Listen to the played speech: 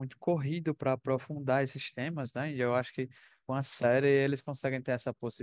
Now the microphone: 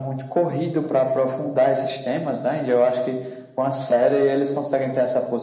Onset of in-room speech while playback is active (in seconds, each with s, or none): none